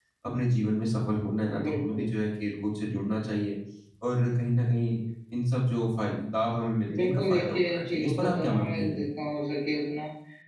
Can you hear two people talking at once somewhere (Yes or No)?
Yes